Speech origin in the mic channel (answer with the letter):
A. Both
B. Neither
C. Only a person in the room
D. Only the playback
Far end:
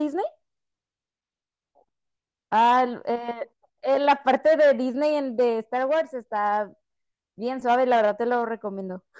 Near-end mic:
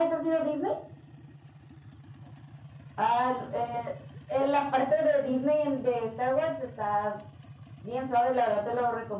D